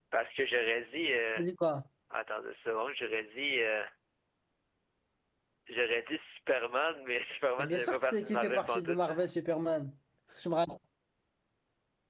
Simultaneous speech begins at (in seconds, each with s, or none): 7.6 s